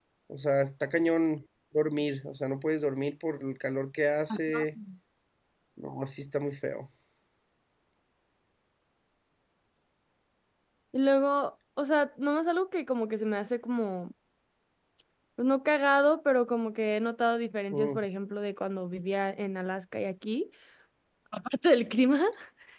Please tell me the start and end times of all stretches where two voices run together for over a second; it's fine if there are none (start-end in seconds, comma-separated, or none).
none